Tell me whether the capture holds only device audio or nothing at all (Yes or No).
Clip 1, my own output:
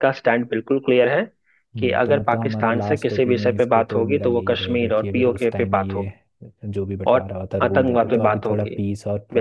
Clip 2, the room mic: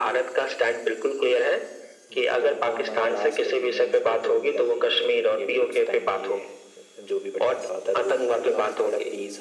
Yes